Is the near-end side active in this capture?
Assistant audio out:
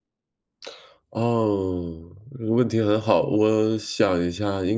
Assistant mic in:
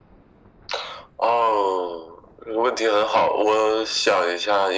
No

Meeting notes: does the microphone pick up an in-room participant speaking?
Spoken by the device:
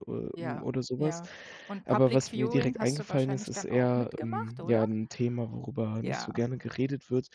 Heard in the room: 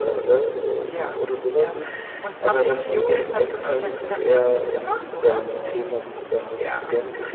No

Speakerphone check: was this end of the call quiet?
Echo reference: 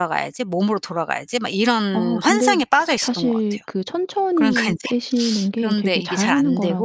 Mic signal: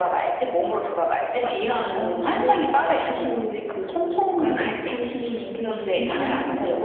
No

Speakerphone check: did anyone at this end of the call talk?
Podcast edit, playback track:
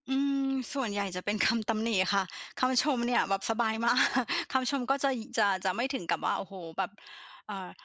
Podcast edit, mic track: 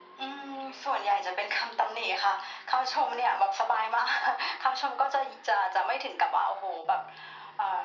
No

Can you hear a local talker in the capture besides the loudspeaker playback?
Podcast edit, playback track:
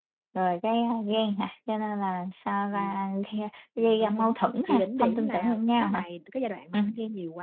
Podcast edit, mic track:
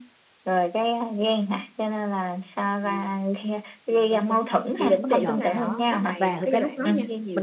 Yes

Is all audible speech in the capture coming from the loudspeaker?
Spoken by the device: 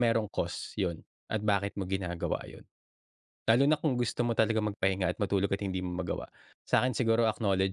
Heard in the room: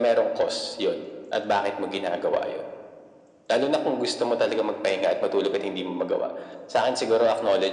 Yes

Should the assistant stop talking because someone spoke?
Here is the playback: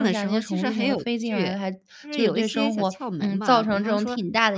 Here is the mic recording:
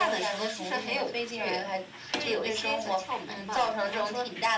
No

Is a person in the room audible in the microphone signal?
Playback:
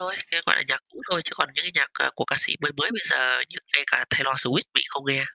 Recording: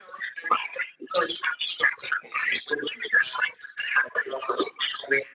No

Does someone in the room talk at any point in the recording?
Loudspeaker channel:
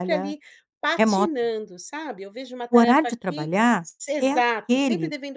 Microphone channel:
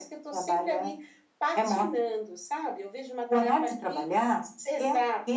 No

